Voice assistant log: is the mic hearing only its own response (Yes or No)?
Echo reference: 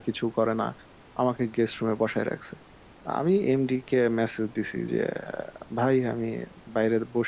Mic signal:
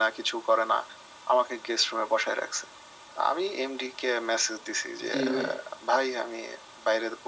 No